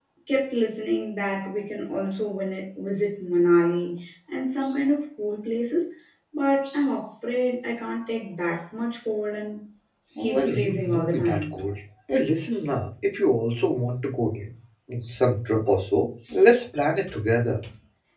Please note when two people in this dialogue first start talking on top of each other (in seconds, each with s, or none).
10.2 s